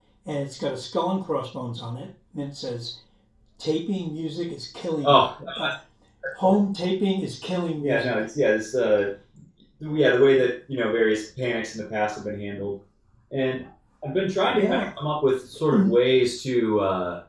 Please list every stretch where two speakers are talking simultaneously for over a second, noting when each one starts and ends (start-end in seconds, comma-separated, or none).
none